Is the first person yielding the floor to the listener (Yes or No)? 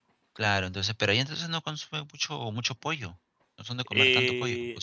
Yes